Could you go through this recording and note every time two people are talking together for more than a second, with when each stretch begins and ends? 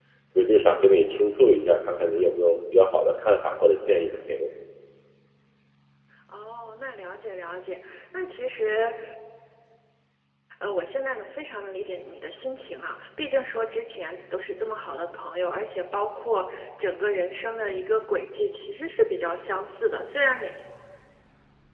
none

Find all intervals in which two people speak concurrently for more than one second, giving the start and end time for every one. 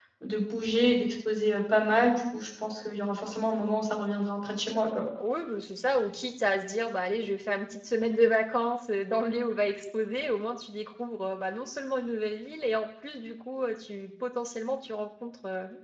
none

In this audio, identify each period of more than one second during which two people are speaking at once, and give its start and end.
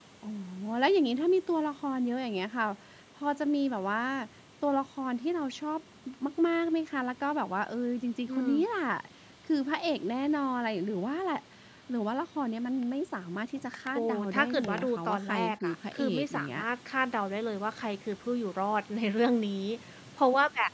13.9-16.6

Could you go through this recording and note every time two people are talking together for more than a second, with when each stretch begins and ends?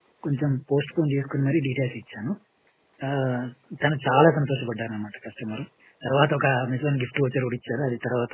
none

